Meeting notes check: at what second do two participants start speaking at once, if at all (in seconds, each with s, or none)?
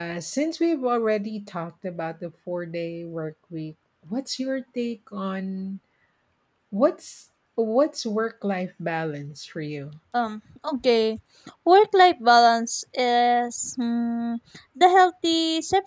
none